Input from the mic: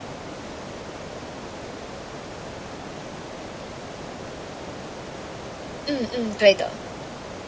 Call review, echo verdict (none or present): none